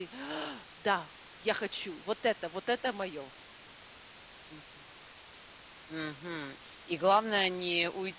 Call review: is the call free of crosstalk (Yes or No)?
Yes